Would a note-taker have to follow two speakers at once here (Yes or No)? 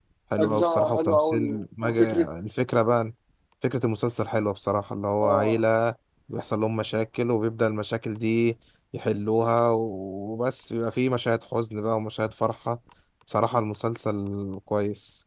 Yes